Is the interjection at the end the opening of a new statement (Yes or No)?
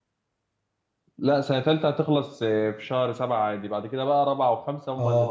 Yes